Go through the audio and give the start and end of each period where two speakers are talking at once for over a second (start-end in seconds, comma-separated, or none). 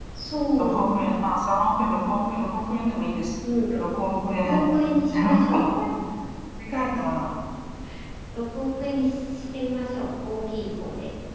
4.4-5.6